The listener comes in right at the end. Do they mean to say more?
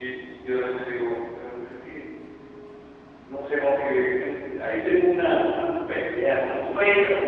No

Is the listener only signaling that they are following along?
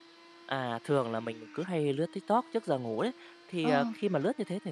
Yes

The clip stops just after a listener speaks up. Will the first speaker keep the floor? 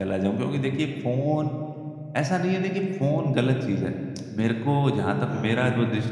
Yes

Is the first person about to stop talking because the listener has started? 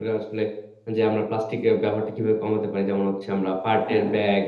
No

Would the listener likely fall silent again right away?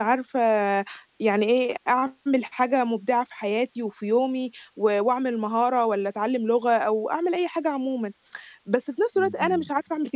Yes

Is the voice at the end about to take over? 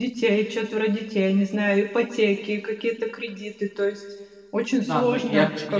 Yes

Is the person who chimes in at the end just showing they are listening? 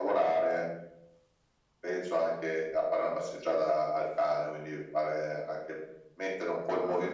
No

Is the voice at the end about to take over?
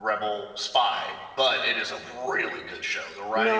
Yes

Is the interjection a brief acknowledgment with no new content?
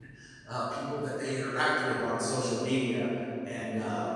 Yes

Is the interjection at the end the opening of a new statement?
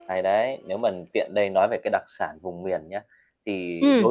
No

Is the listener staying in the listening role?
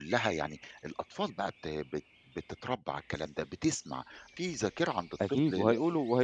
No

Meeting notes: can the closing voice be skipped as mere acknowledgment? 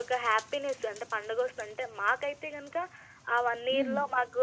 Yes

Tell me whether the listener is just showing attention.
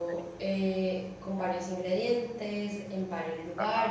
Yes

